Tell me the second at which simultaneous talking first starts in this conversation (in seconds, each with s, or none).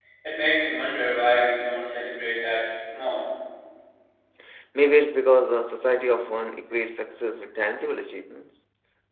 none